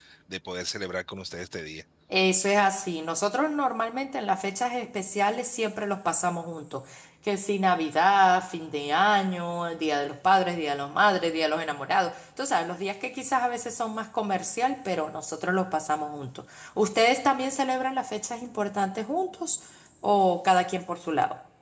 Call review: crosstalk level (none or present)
none